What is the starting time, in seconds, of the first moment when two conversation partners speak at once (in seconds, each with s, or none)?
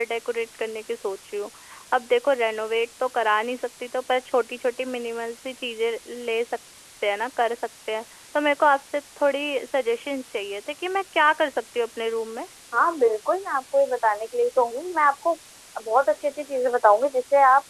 none